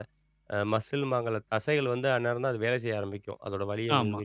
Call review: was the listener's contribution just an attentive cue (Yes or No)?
No